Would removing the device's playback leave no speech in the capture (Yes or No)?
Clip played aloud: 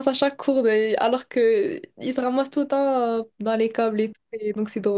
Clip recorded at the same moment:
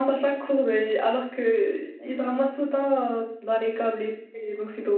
Yes